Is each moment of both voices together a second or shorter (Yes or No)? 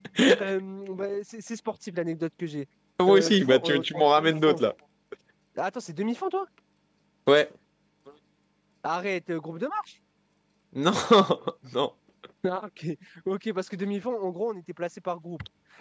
No